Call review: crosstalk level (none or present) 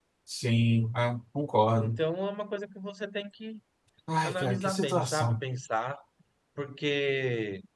present